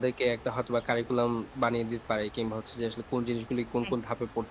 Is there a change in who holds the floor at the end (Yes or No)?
No